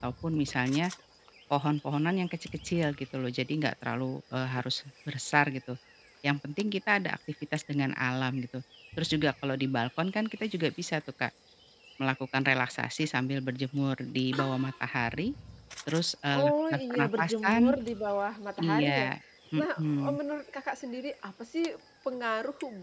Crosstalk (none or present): present